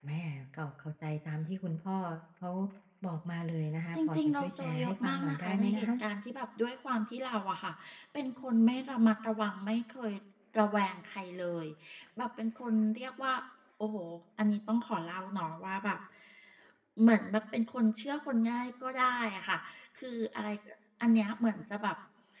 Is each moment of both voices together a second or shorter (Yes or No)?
No